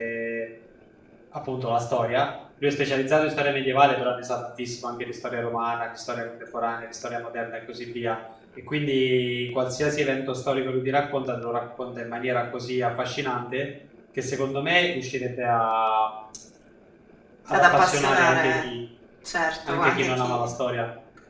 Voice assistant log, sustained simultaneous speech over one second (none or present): present